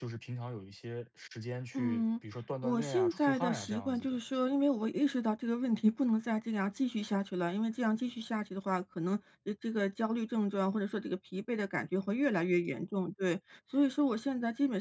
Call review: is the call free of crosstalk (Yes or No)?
No